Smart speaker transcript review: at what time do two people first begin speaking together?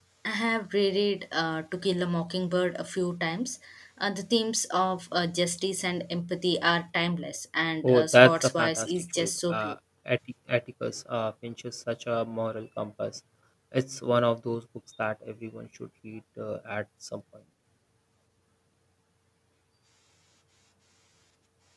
7.8 s

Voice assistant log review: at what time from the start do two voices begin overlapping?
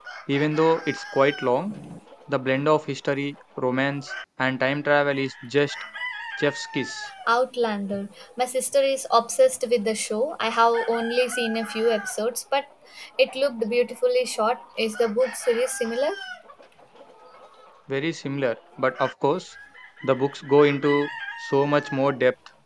none

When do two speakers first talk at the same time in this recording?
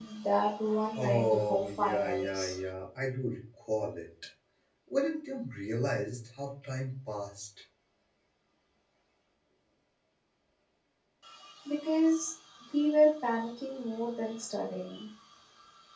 0.9 s

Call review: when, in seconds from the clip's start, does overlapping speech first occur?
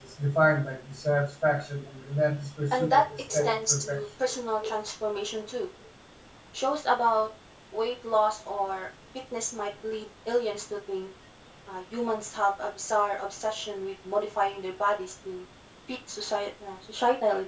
2.7 s

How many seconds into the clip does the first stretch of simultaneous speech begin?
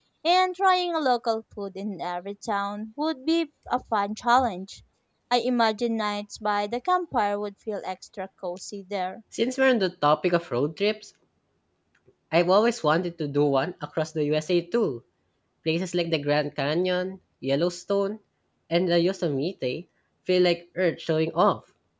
none

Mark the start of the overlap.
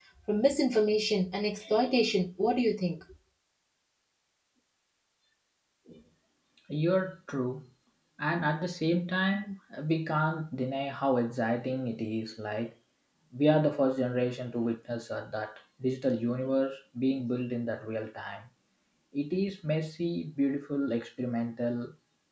none

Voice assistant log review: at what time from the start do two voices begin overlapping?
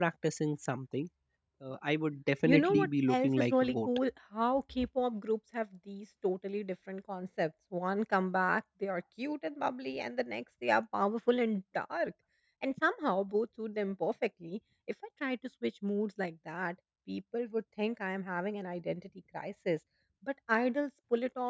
2.4 s

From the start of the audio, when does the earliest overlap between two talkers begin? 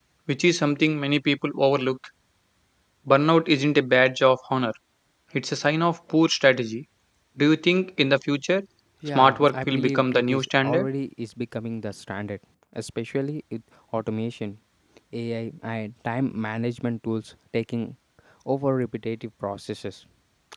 9.2 s

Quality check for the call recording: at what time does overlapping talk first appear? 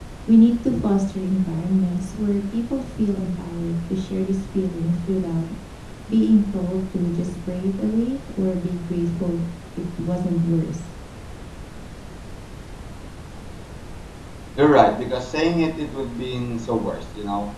none

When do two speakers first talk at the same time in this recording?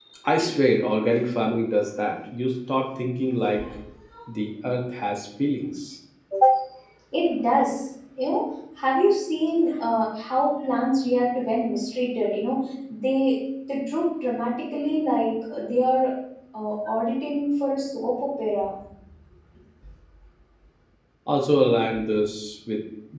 none

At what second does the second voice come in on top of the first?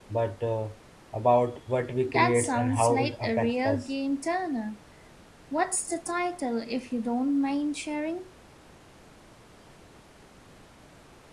2.1 s

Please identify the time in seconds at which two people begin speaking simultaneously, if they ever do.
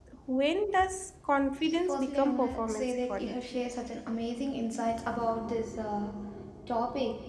1.9 s

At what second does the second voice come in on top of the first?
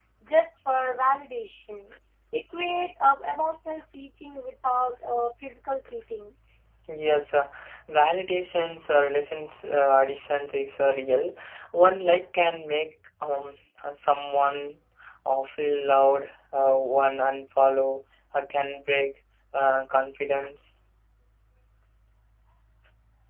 none

